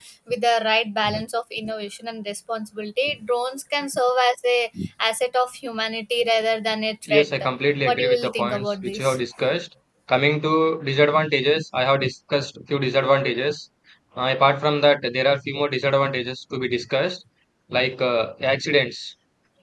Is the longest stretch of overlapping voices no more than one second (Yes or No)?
No